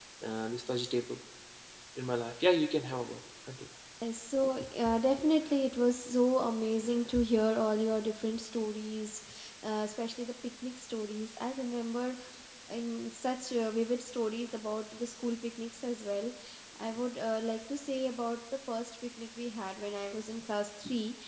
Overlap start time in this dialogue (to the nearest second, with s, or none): none